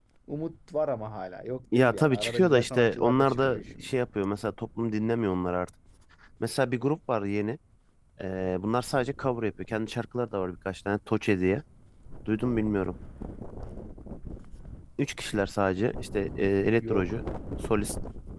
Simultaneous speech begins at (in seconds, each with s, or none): 1.7 s